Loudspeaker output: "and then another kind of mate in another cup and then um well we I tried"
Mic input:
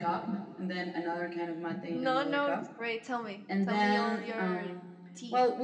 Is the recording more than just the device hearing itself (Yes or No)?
Yes